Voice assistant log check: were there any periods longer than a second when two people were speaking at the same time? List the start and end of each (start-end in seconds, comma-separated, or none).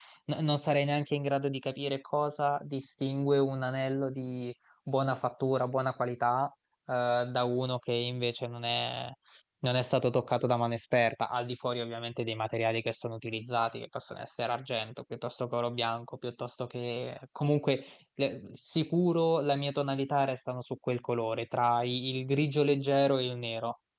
none